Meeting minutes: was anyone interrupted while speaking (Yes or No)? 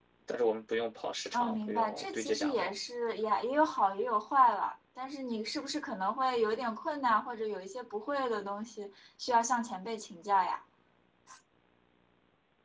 Yes